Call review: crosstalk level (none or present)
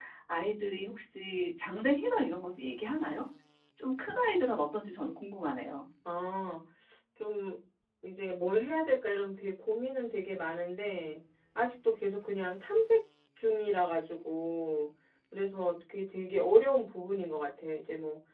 none